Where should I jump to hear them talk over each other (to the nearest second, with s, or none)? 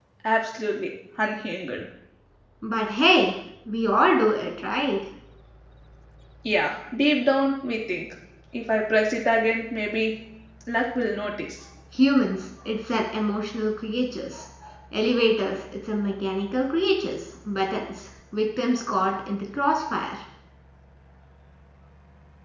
none